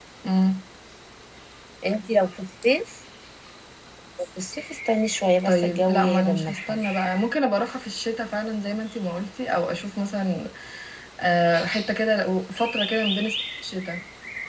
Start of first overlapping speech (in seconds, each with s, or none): 5.5 s